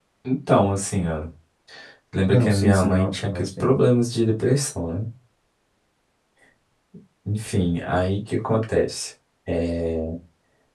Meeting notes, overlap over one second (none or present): present